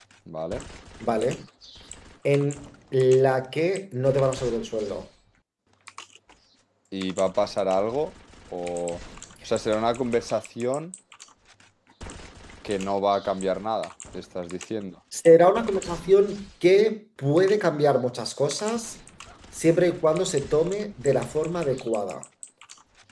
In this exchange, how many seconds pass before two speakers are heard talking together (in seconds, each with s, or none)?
none